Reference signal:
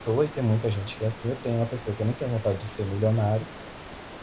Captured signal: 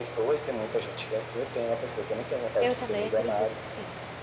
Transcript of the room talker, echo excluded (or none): eu também acredito que sim.